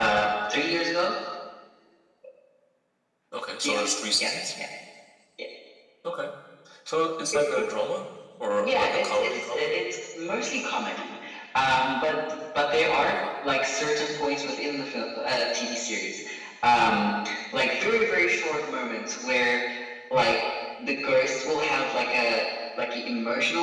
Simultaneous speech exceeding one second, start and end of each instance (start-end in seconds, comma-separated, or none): 8.5-9.7